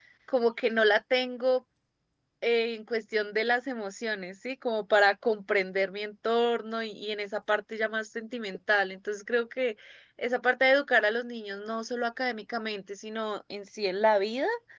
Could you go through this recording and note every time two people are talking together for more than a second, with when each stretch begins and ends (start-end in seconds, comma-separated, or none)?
none